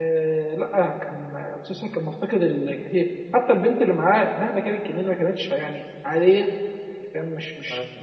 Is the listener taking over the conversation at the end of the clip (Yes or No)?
No